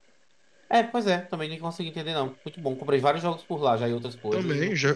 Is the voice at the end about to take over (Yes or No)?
Yes